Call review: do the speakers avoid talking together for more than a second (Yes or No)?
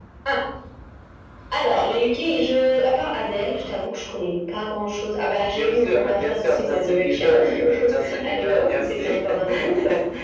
No